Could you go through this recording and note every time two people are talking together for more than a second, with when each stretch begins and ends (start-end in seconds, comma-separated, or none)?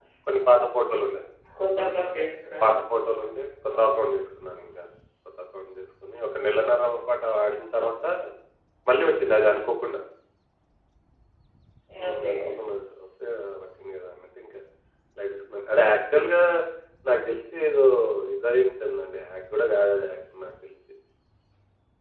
none